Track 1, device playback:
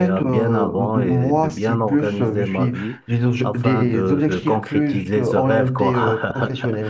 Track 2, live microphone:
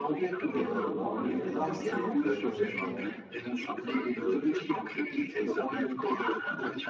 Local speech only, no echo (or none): de développement. Je vais la lancer très prochainement,